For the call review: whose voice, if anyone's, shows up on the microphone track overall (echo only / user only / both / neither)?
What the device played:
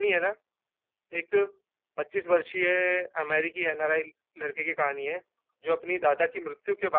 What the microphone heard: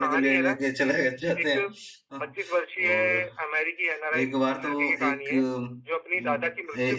both